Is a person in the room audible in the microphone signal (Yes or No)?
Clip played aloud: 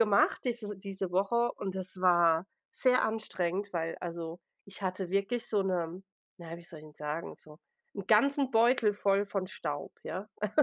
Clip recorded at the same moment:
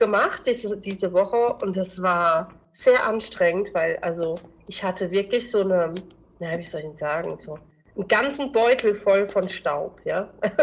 No